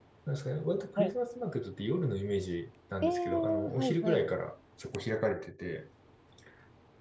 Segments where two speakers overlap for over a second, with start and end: 3.0-4.3

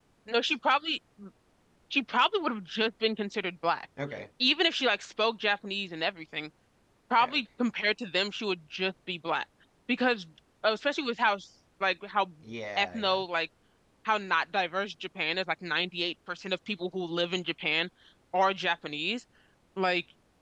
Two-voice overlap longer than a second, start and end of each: none

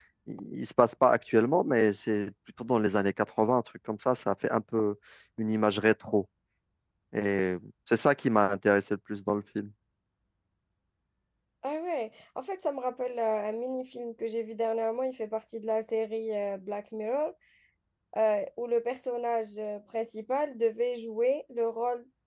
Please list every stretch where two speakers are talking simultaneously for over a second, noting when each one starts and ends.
none

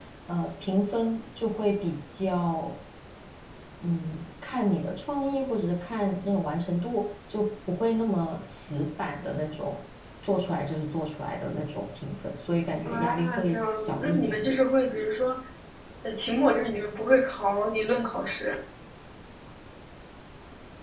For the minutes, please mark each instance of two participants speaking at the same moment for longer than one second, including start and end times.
12.8-14.5

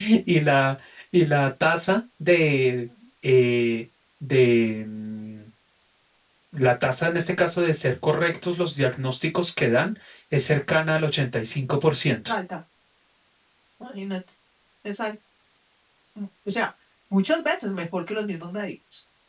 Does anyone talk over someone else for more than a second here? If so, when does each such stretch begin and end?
none

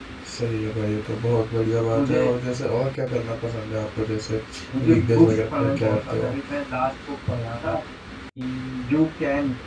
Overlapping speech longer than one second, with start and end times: 4.9-6.5

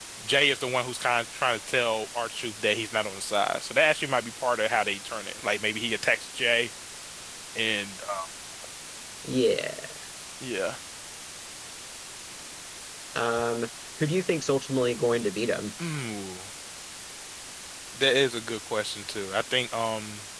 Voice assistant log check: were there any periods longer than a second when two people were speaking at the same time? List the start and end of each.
none

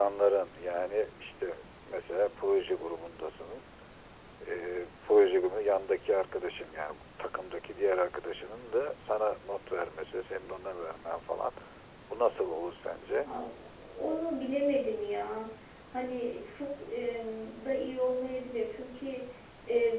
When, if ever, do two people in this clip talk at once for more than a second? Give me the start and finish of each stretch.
none

